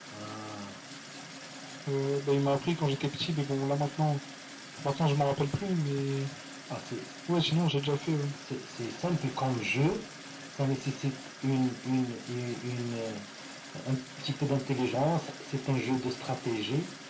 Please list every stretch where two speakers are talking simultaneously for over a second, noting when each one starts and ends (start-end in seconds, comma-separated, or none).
none